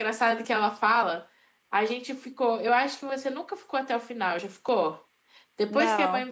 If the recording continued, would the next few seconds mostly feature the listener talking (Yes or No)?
No